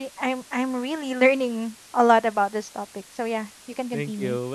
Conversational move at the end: taking over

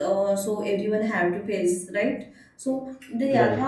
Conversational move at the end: listening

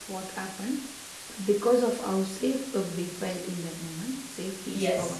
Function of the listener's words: taking over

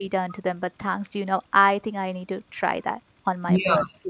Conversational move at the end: taking over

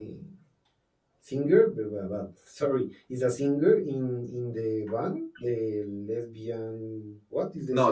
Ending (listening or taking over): taking over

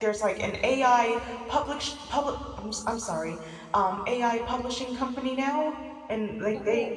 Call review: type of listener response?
listening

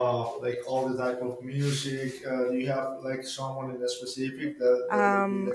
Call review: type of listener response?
taking over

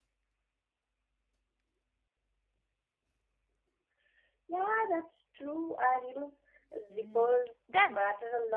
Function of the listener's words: taking over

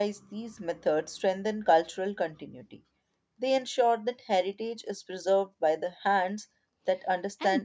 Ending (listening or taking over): taking over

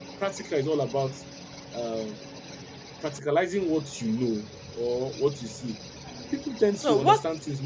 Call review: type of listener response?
listening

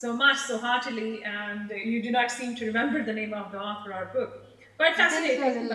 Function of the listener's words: taking over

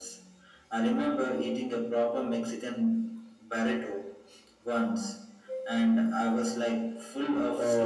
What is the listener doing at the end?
taking over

